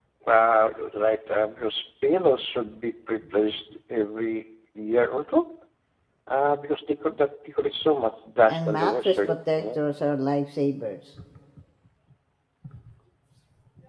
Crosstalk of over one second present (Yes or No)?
Yes